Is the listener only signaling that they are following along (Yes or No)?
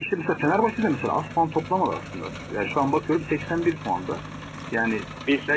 Yes